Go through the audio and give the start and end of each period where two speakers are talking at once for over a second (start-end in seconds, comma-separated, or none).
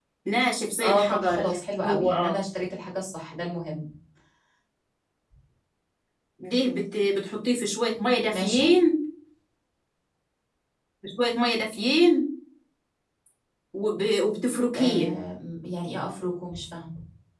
0.8-2.4